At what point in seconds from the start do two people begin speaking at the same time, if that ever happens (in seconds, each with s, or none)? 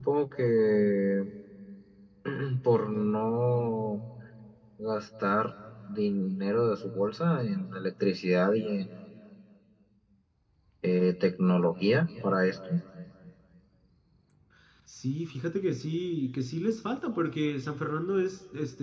none